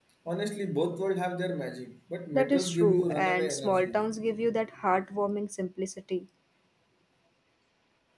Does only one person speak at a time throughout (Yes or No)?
No